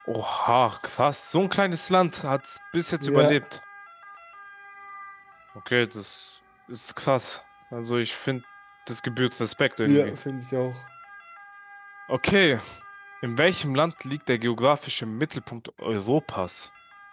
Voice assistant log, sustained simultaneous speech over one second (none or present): none